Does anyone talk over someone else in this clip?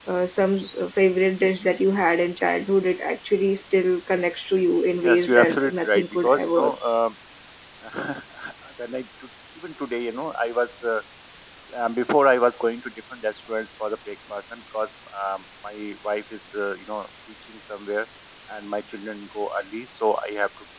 Yes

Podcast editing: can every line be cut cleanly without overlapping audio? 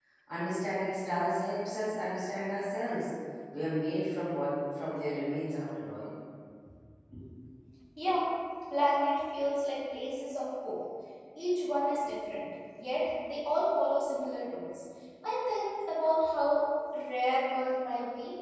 Yes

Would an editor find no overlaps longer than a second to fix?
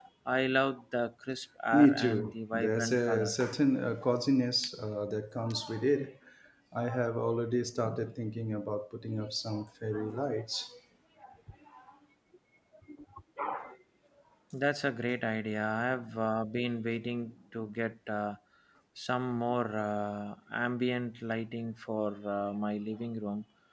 No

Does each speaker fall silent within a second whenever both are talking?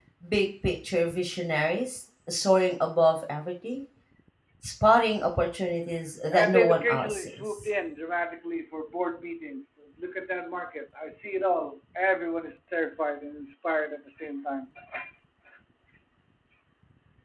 No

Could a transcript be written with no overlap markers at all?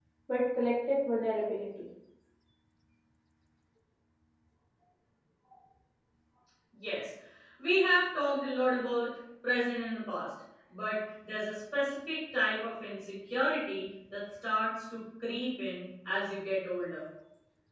Yes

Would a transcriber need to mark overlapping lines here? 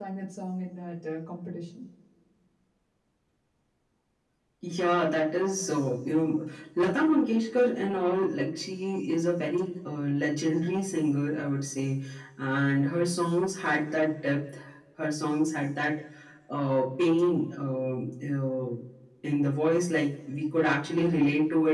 No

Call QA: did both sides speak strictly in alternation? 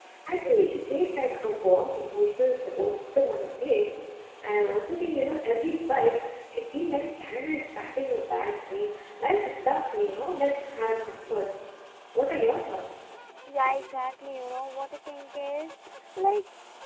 Yes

